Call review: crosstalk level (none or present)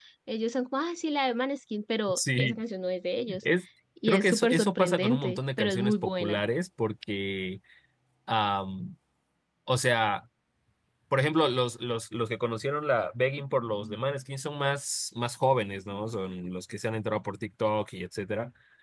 present